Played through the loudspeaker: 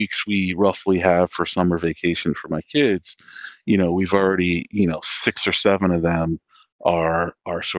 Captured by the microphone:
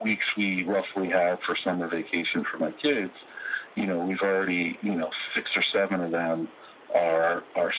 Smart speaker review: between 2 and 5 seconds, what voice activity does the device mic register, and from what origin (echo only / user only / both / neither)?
echo only